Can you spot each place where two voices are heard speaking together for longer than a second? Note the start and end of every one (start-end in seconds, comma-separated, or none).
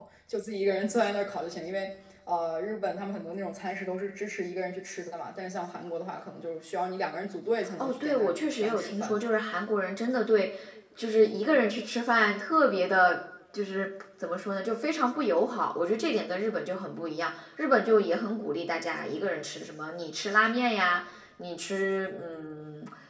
7.8-9.2